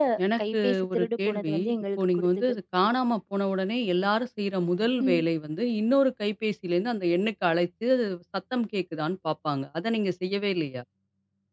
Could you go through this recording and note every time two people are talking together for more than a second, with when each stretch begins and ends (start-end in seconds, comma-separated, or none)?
0.5-2.5